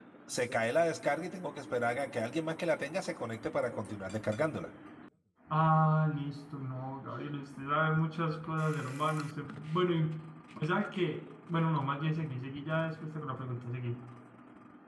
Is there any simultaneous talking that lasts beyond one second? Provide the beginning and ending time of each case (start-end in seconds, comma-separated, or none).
none